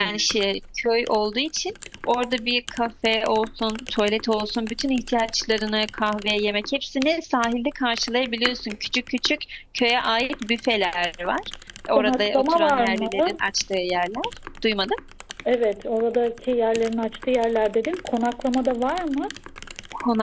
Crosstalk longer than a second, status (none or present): present